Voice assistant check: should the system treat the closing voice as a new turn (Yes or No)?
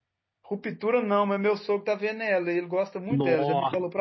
Yes